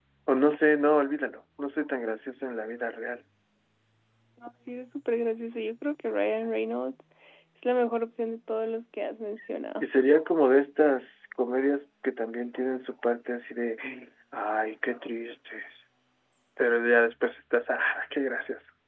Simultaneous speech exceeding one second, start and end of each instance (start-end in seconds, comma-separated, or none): none